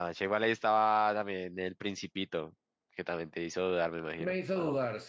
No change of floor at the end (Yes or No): No